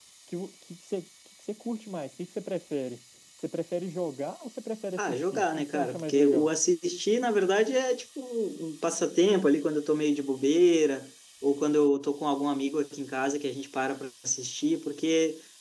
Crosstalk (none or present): present